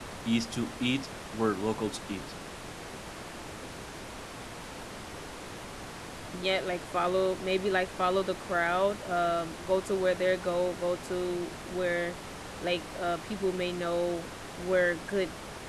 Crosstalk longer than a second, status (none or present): none